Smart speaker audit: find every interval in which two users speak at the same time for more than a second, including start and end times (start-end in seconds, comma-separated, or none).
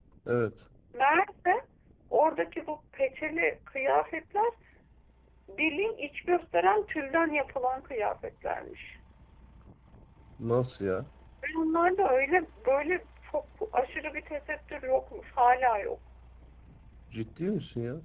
none